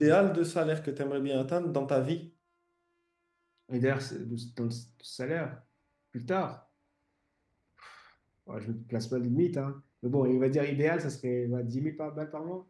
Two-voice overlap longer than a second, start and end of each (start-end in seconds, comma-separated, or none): none